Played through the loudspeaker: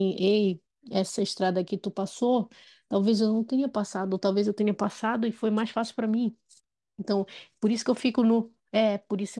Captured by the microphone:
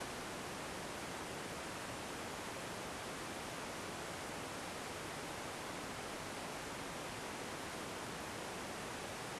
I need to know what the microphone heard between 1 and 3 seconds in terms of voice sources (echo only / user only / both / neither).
neither